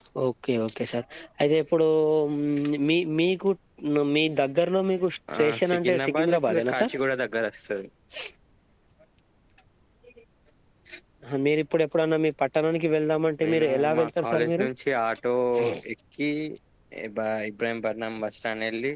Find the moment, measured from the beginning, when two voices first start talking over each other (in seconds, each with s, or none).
5.4 s